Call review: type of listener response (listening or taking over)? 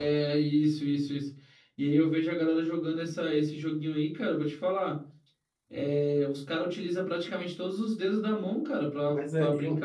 taking over